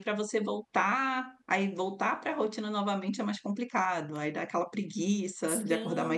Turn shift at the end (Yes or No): Yes